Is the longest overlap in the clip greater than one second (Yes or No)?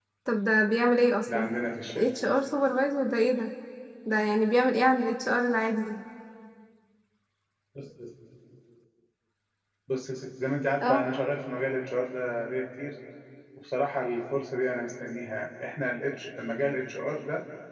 No